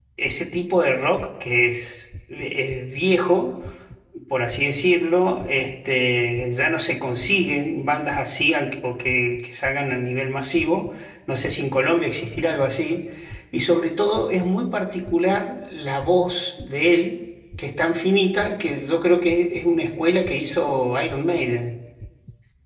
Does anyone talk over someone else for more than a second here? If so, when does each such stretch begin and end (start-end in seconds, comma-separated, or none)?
none